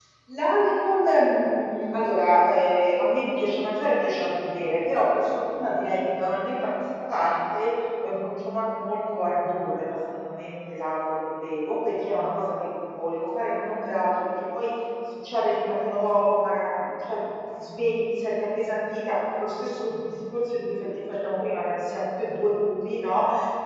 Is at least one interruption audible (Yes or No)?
No